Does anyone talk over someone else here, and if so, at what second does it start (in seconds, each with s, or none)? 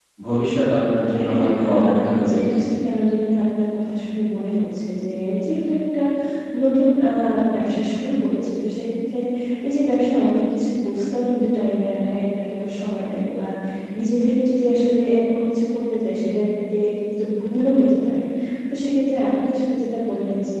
1.3 s